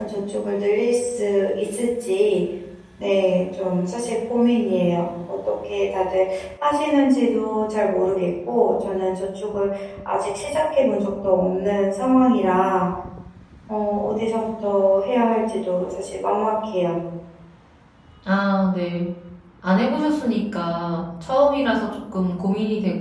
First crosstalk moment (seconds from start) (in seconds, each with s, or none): none